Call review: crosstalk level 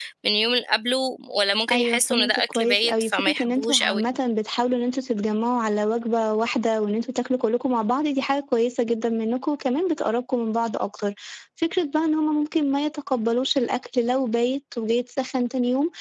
present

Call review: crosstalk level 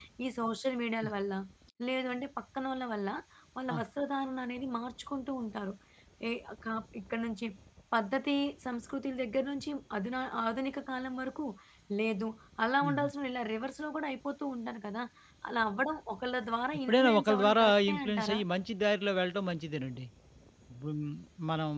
present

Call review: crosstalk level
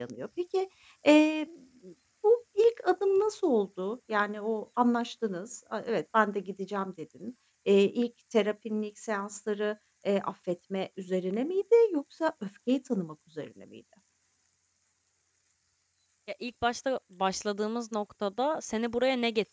none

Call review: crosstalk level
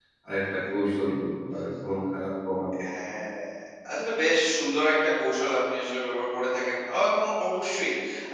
none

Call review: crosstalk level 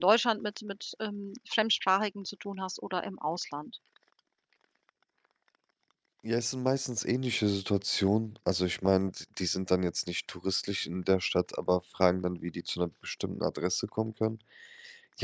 none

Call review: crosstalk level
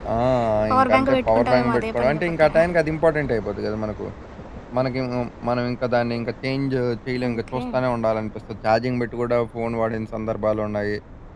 present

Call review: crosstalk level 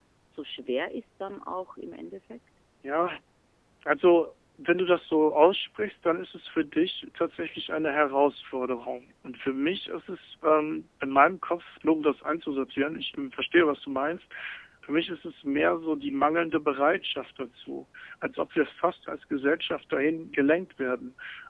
none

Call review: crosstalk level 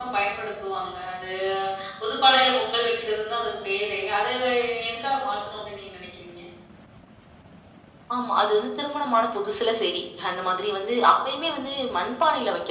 none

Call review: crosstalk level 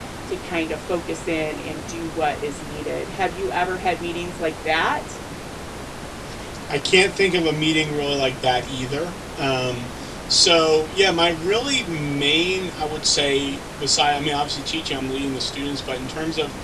none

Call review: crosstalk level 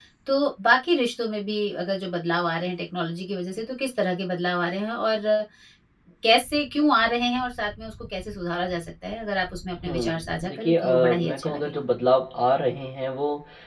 present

